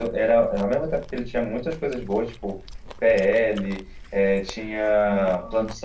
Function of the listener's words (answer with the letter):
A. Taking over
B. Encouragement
B